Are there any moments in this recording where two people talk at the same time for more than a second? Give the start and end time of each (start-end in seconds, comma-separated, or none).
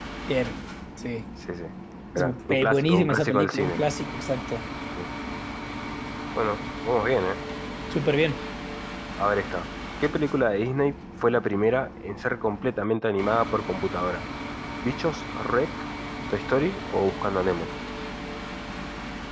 2.1-3.8